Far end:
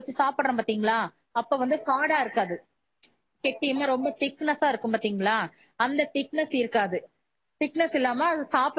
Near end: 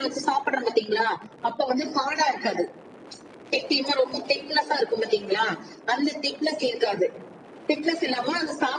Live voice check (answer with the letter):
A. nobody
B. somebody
A